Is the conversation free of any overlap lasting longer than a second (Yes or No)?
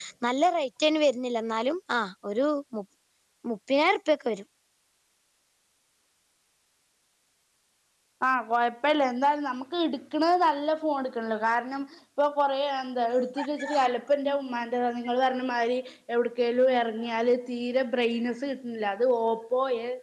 Yes